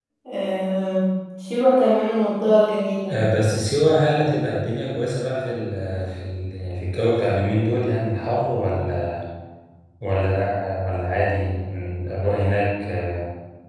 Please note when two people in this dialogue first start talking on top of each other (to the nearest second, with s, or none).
none